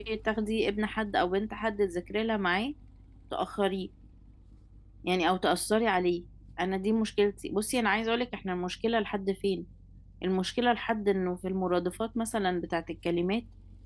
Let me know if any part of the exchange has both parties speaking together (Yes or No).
No